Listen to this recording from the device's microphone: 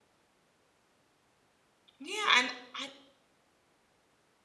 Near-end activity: present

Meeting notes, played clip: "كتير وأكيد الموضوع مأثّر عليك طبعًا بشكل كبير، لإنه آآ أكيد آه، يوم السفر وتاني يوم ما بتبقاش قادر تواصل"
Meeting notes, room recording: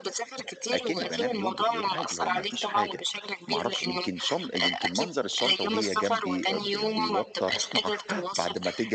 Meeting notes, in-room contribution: present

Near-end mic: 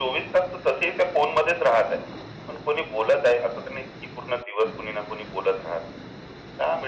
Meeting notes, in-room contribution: none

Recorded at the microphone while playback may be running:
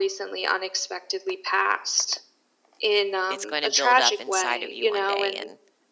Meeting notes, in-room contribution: present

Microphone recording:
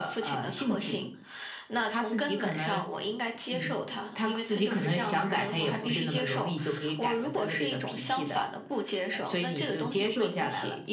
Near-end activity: none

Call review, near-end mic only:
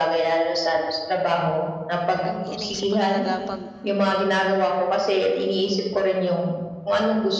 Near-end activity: present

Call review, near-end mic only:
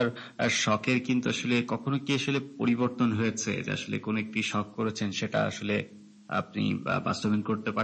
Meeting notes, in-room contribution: none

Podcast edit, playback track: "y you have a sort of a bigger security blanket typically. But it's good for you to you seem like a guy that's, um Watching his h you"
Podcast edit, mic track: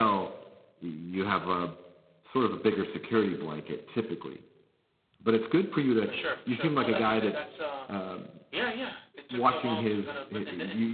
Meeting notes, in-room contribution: present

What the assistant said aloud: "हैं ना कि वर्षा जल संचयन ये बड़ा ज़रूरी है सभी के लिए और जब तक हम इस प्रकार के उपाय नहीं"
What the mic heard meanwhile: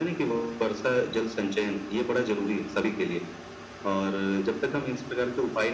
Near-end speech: none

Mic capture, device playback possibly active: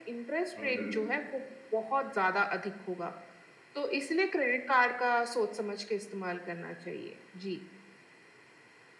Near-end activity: present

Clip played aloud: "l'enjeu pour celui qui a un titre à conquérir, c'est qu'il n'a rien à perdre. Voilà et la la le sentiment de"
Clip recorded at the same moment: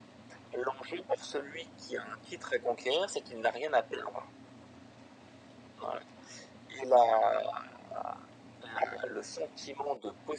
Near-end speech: none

